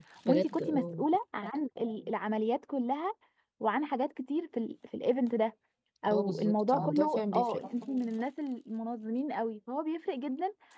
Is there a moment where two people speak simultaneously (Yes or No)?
Yes